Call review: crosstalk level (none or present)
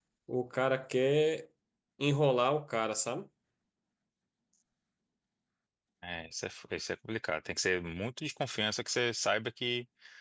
none